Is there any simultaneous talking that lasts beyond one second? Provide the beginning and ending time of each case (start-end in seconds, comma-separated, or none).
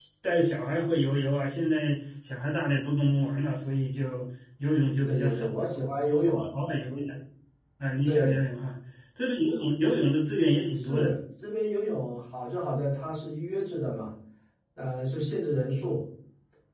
none